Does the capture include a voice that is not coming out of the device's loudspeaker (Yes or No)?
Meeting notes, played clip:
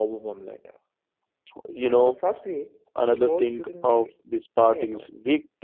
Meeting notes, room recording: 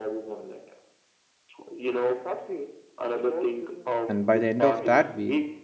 Yes